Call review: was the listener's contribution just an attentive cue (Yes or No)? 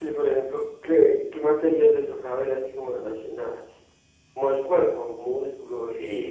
No